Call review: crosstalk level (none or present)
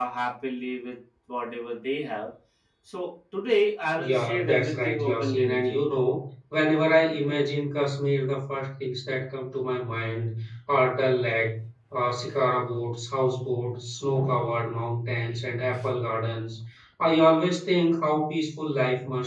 present